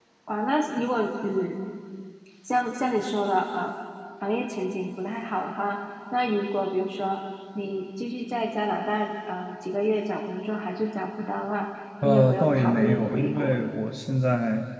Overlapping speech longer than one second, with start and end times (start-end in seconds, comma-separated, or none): 12.0-13.7